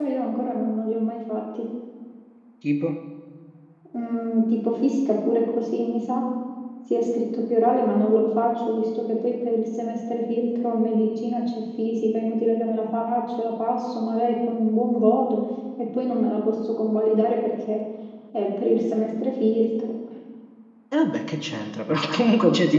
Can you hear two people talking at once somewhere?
No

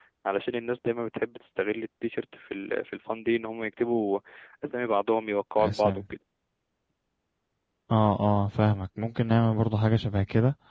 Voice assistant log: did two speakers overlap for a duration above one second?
No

